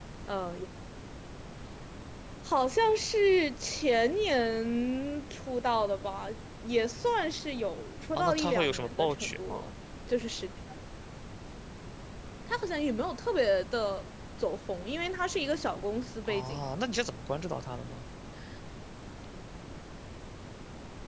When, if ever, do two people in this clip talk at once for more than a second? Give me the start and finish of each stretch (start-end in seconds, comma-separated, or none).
8.2-9.7